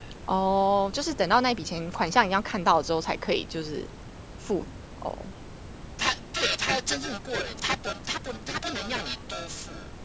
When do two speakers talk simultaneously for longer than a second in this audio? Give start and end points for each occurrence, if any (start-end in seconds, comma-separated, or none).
none